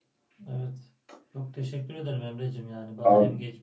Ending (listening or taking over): listening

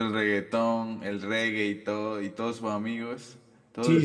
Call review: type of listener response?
taking over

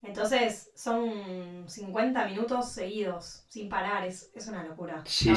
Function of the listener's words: taking over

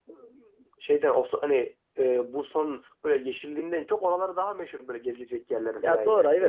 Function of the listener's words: taking over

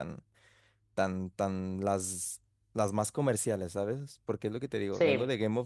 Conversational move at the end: listening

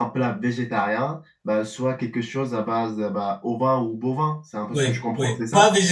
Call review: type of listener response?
taking over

